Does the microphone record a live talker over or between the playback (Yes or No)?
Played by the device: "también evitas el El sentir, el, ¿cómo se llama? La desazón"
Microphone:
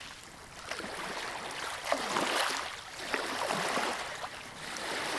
No